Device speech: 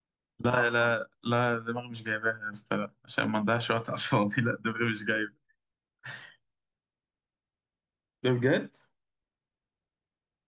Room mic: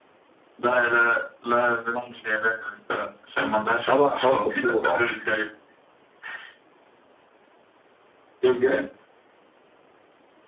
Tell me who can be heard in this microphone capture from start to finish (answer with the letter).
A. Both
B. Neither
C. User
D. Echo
A